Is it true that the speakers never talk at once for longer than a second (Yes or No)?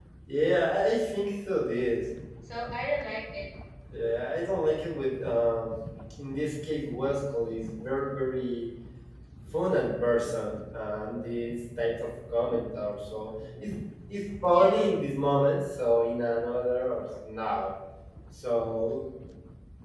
Yes